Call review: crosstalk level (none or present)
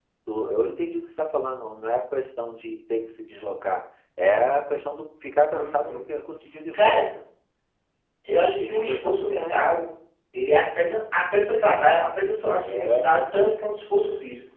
present